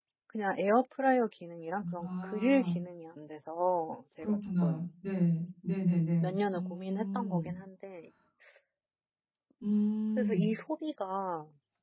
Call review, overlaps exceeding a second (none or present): present